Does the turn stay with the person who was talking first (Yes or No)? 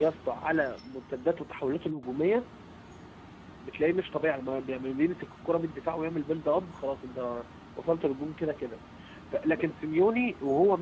Yes